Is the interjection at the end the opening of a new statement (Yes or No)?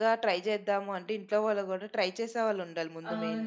Yes